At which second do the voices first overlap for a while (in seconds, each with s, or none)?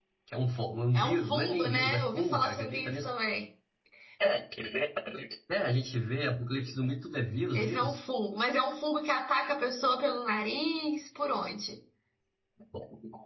0.9 s